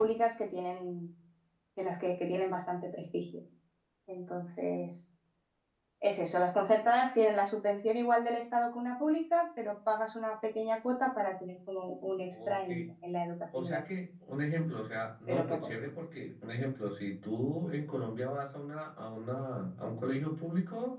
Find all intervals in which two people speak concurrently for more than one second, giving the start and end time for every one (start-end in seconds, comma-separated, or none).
none